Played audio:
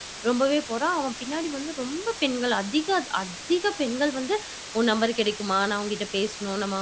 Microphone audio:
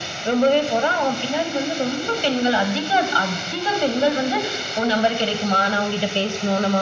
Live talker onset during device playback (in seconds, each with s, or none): none